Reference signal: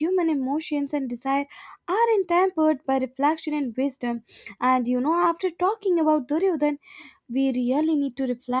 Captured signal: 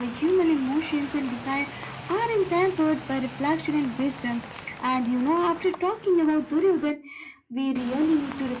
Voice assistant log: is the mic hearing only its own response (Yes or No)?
Yes